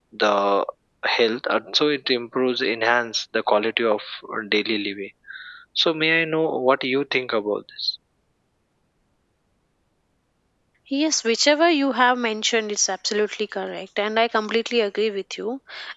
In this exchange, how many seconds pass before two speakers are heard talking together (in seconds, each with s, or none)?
none